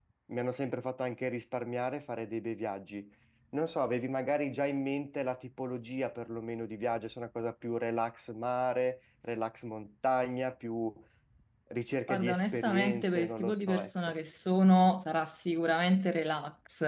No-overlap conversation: No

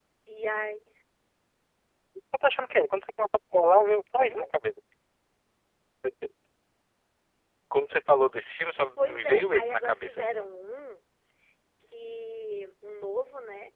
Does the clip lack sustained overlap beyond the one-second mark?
No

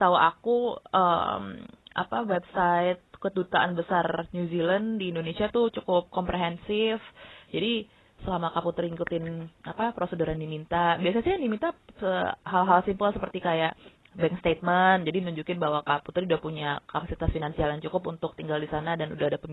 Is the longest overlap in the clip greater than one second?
No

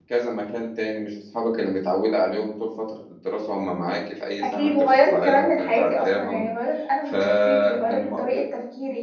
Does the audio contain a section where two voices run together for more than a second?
Yes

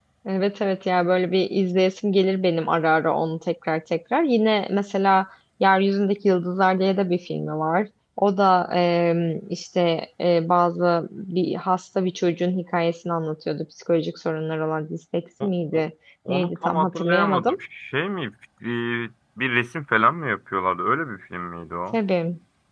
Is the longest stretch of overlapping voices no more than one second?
No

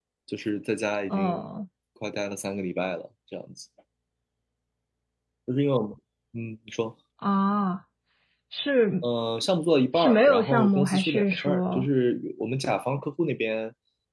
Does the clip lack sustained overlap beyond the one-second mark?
No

